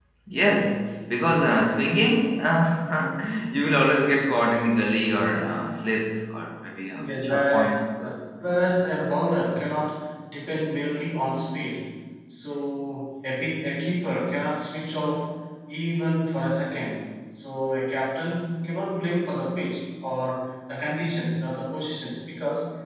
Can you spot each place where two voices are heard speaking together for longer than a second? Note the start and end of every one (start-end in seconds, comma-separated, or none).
6.9-8.1